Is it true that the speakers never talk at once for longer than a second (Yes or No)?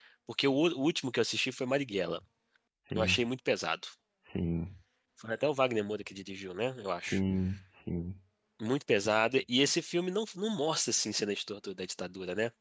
Yes